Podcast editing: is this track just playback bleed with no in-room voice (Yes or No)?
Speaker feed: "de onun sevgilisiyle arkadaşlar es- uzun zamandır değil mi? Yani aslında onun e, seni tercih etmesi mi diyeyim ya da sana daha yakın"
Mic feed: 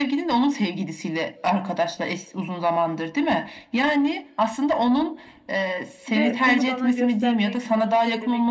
No